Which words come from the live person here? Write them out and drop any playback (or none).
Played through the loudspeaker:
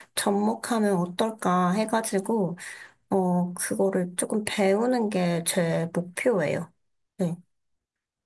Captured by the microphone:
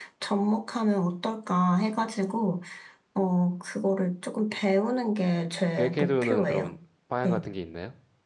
계획해두는 그런 방향 같은 게 있나요?